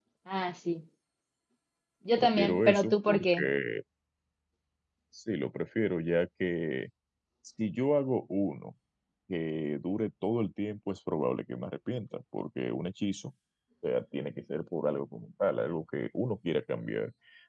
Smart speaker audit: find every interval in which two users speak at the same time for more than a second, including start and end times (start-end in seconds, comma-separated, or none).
2.2-3.5